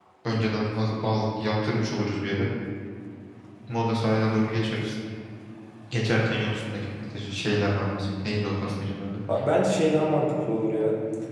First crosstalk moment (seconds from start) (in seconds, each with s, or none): none